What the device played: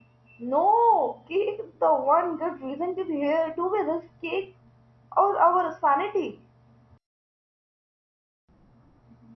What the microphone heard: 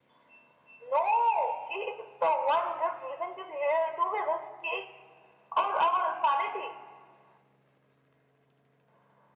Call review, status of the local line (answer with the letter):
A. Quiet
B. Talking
A